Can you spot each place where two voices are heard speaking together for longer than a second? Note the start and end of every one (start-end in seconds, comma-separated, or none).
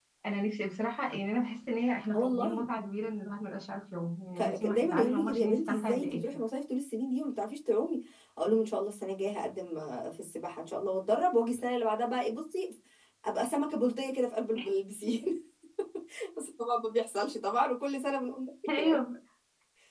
4.4-6.2